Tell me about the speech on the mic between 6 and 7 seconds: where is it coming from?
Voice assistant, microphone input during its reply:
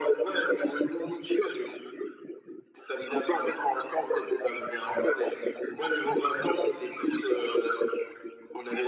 echo only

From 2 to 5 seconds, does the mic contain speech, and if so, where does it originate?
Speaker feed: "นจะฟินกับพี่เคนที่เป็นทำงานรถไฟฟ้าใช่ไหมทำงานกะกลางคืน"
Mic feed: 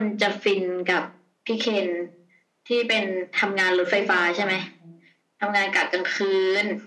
both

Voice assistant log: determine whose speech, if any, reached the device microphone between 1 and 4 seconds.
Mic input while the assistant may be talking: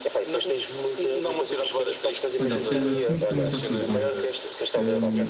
both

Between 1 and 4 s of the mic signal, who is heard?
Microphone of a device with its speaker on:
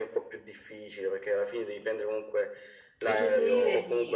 both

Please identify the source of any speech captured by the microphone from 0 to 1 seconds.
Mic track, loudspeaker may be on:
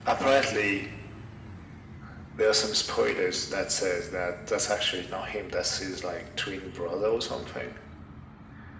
echo only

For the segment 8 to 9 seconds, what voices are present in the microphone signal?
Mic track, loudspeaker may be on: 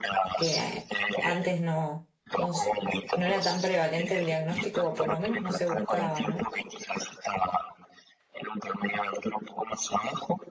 echo only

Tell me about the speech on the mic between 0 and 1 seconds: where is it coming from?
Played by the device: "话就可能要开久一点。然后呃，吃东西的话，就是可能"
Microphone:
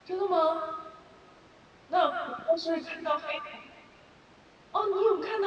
user only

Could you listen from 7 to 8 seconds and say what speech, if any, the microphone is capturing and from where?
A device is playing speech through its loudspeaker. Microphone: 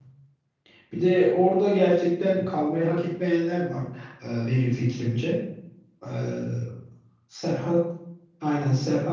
user only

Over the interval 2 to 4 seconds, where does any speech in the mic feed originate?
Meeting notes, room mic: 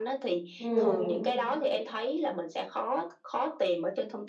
echo only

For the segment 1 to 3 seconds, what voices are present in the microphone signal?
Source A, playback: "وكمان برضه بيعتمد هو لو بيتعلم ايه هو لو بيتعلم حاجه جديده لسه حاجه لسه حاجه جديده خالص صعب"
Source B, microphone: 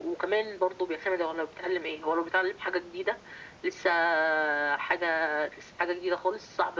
echo only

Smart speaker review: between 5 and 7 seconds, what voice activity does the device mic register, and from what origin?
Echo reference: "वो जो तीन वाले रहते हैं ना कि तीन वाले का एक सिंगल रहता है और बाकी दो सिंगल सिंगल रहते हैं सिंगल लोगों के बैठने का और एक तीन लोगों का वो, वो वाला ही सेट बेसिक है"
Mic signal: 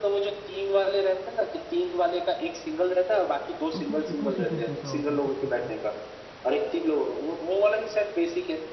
both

